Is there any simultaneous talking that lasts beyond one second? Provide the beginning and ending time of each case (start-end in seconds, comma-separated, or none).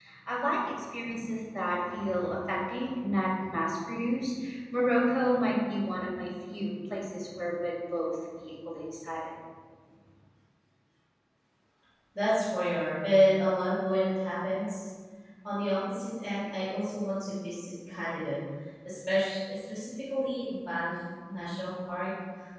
none